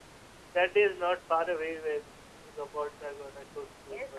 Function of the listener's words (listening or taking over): taking over